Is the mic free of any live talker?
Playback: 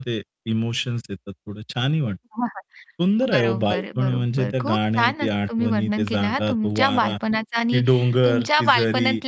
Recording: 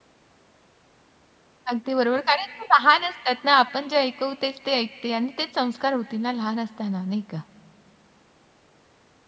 No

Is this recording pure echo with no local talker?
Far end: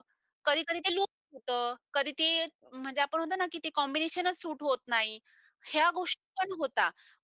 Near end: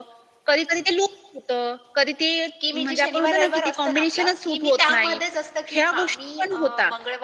No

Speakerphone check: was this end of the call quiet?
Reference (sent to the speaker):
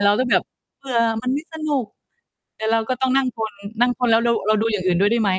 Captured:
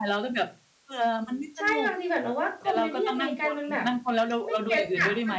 No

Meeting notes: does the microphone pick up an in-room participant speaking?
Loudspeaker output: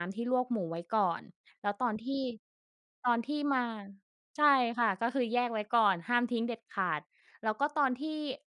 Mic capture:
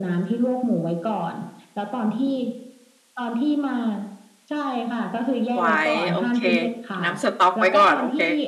Yes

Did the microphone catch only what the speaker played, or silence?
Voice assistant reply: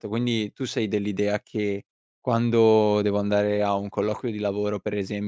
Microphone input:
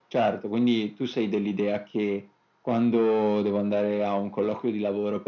Yes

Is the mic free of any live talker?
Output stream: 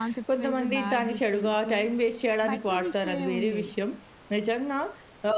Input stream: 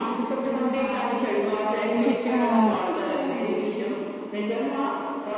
No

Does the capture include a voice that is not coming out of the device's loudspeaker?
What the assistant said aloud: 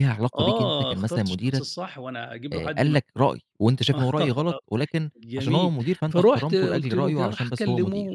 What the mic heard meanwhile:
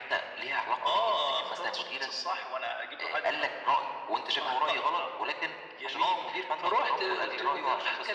No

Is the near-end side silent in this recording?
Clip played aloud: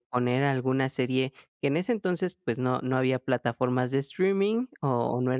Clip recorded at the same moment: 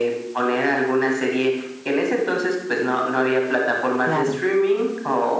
No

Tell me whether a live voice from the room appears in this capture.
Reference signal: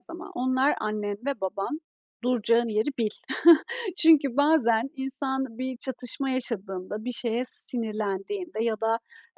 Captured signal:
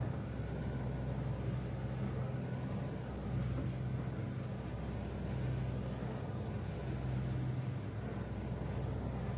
No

